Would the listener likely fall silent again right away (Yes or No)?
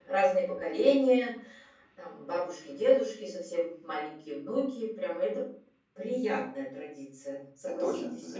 No